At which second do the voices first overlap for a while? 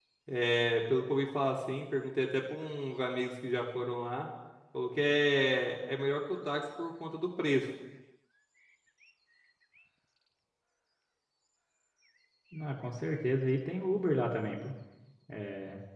none

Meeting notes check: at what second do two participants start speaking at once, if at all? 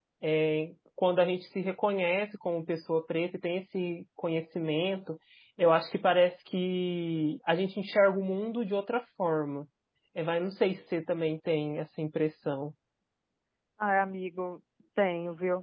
none

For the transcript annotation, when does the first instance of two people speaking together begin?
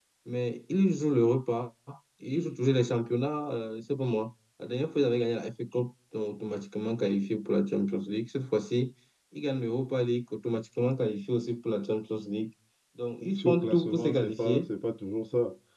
13 s

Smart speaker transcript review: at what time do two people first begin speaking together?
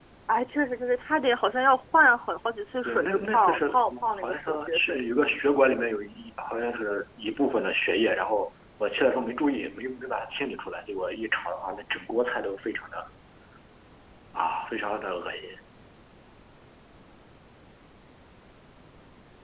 3 s

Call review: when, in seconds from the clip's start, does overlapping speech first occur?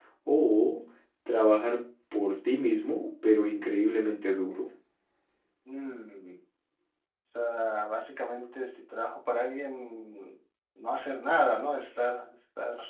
none

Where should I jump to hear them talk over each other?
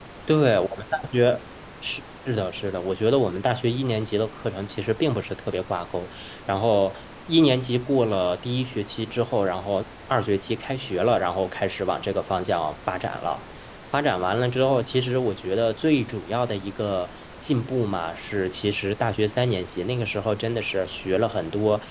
none

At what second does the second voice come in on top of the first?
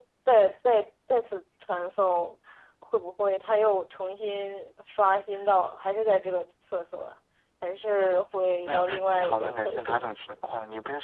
9 s

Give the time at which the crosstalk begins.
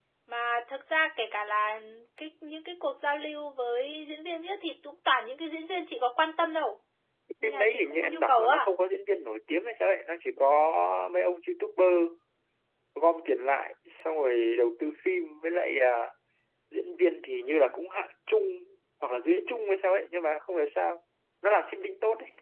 7 s

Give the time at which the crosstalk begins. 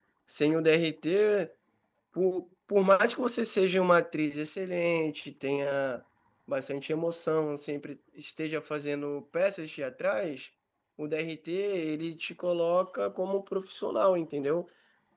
none

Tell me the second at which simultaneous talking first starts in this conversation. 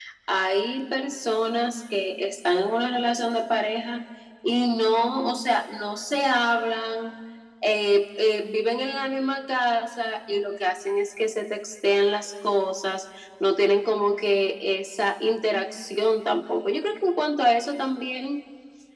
none

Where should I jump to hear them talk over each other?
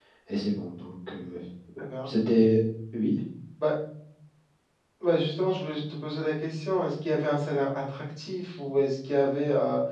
none

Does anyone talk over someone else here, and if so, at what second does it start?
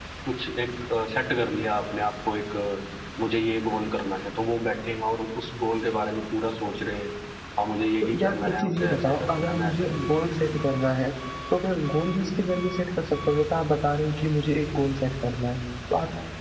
8 s

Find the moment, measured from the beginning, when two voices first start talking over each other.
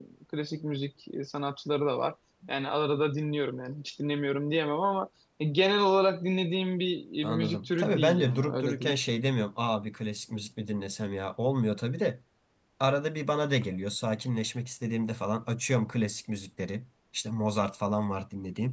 7 s

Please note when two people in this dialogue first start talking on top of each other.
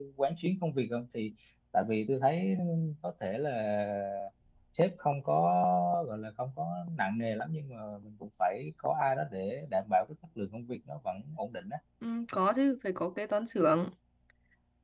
none

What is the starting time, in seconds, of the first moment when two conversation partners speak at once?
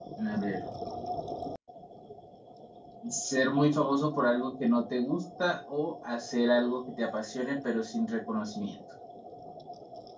none

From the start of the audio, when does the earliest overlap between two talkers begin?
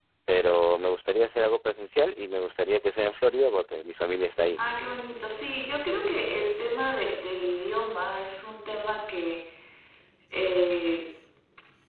none

